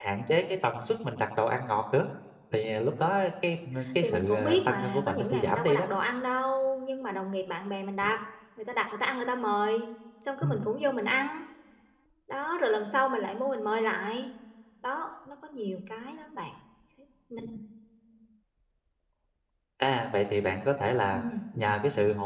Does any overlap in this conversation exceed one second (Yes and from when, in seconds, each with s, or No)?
Yes, from 4.0 s